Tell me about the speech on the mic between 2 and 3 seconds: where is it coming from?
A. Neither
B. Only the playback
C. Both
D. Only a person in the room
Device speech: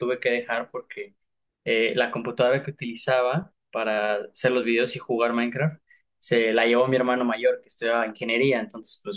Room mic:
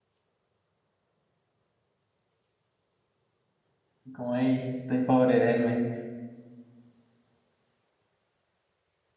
A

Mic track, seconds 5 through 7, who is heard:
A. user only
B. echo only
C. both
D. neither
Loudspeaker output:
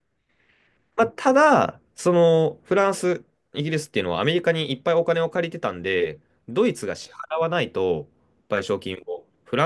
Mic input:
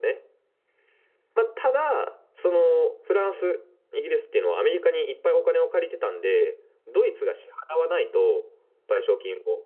B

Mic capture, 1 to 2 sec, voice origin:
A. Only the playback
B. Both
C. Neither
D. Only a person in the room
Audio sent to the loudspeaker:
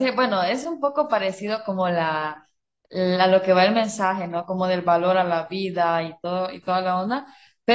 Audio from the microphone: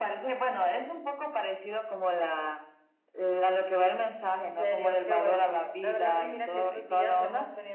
A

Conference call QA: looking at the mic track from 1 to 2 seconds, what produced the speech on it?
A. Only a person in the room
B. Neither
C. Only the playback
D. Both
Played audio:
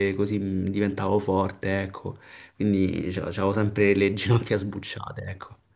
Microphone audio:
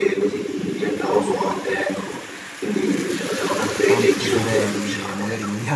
C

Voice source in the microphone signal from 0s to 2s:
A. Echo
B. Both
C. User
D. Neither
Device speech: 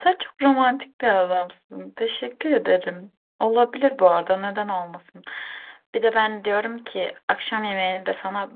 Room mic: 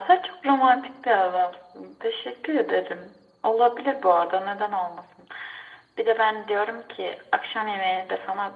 A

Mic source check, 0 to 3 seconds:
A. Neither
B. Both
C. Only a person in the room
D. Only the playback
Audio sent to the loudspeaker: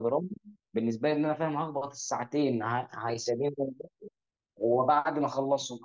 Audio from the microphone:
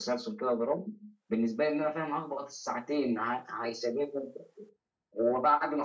D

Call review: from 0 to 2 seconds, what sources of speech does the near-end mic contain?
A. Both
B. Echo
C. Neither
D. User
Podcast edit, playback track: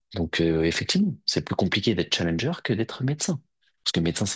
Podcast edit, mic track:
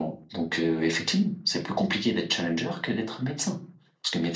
B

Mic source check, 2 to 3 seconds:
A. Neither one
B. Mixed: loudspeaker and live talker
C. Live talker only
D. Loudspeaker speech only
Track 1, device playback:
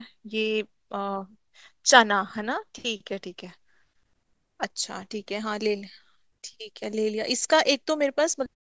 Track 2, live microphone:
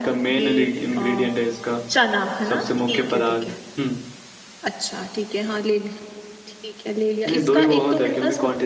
B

